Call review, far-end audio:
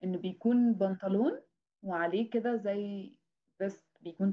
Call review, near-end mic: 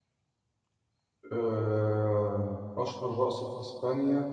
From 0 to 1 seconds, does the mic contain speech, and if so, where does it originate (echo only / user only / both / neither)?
neither